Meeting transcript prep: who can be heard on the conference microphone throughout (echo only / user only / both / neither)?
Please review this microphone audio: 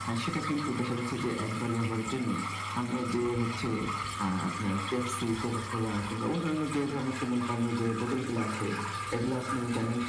echo only